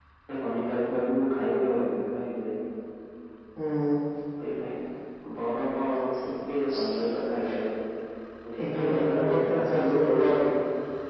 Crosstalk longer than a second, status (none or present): present